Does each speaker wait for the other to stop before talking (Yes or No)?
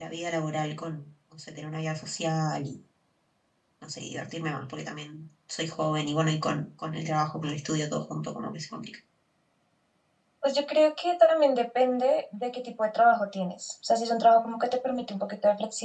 Yes